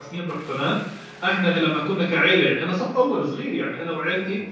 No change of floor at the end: Yes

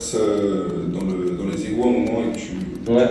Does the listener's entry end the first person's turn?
Yes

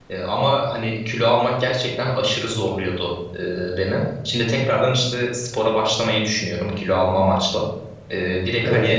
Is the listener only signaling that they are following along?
Yes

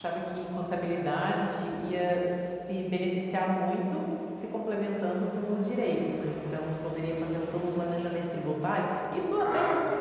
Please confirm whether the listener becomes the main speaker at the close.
No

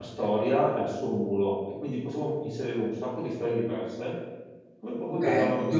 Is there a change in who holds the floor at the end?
Yes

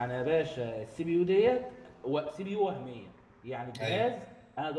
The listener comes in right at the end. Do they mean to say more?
No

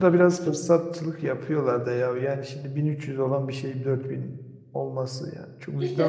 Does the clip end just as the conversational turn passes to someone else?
Yes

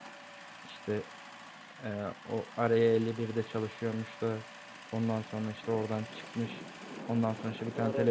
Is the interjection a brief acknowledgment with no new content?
Yes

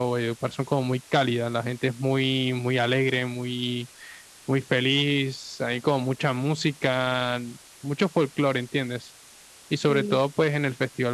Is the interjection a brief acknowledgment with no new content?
Yes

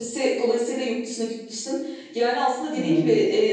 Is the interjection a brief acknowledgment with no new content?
Yes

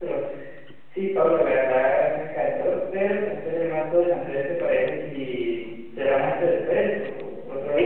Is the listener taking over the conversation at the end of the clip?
Yes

